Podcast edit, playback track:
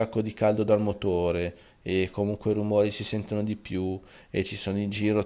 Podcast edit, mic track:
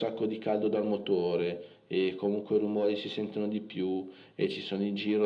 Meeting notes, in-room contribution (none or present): none